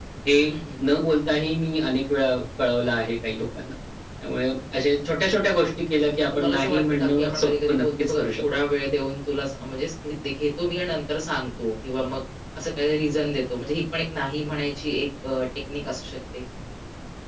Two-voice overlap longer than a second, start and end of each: 5.9-8.4

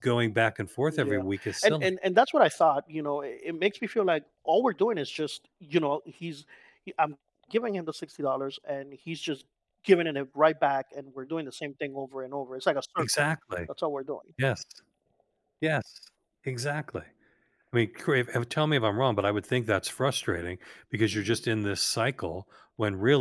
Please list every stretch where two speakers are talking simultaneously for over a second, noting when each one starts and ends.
none

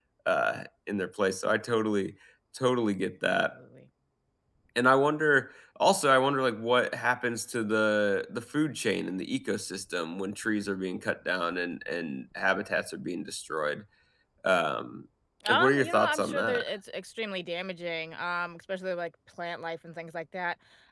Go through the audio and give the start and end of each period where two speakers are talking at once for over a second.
15.5-16.7

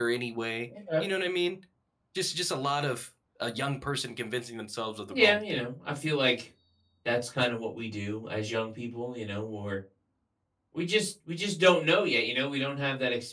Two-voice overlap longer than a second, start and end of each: none

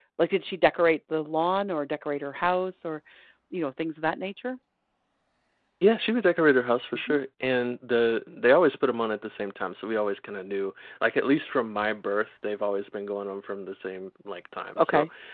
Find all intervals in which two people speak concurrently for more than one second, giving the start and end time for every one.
none

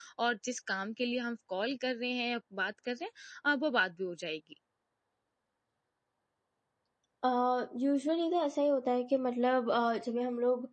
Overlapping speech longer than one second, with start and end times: none

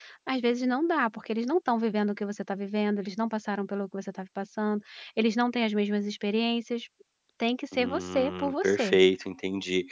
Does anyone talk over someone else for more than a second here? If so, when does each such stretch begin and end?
7.7-9.0

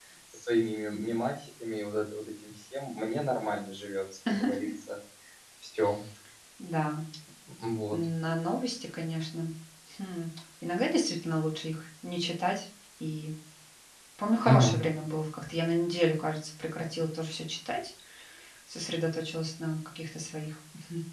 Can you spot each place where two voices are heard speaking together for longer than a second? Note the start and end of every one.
none

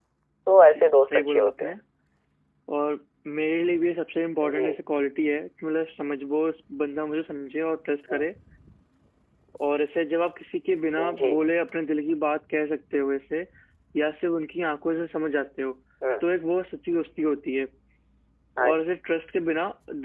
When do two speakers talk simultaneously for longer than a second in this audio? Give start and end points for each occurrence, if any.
0.5-1.7

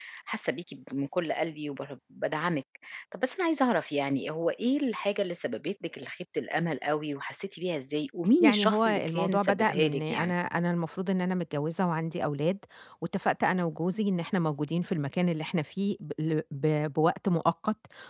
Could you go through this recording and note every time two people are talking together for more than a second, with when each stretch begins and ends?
8.4-10.3

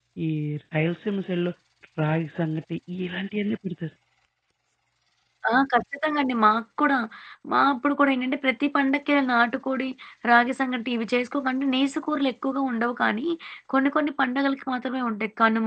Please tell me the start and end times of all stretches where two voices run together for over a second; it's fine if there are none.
none

